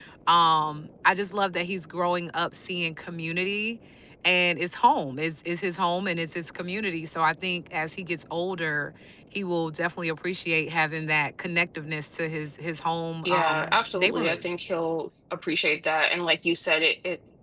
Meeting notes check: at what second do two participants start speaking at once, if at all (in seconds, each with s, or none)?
13.2 s